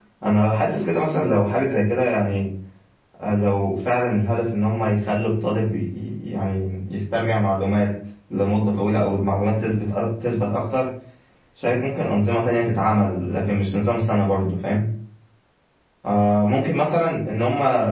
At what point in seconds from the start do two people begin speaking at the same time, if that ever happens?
none

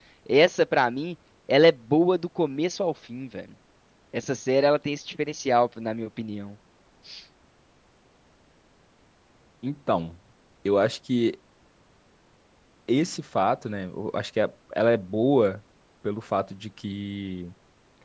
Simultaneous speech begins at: none

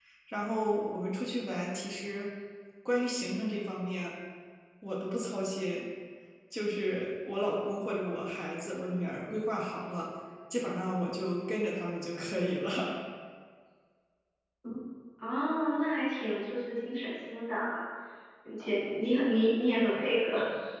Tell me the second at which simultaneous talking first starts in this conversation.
none

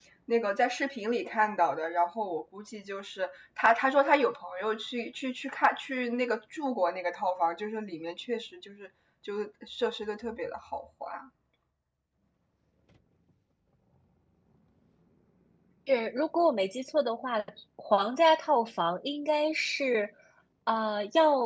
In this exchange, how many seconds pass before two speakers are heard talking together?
none

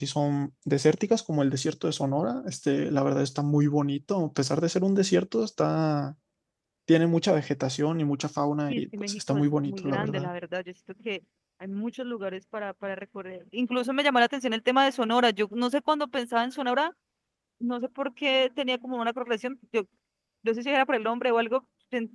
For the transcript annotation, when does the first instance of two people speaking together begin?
8.7 s

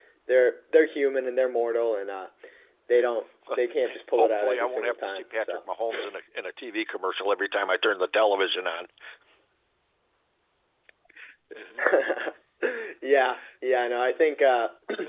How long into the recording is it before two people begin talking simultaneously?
3.5 s

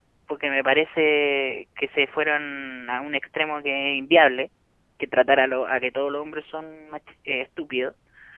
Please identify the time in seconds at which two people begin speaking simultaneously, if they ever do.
none

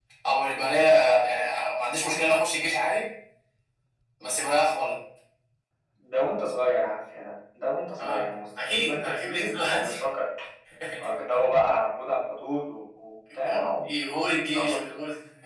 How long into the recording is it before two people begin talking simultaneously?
8.0 s

